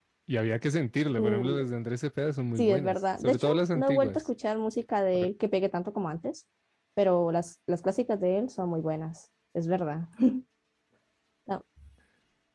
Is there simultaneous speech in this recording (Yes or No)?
Yes